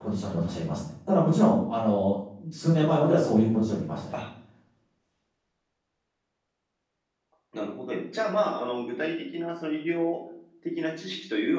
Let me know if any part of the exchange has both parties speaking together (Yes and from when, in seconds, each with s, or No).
No